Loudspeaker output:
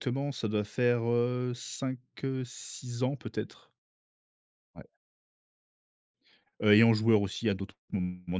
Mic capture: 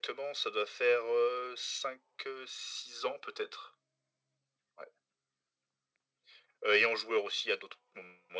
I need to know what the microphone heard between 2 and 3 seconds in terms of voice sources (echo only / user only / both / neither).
echo only